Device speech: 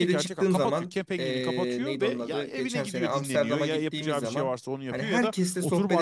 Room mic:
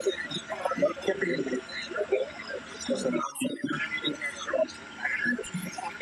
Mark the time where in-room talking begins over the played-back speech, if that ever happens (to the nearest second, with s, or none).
none